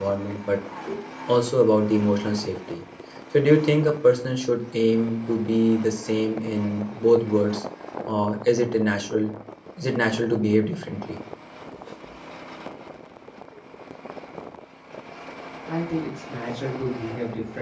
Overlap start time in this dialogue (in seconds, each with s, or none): none